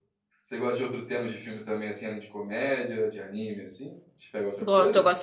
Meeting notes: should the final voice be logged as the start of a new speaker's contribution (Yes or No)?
Yes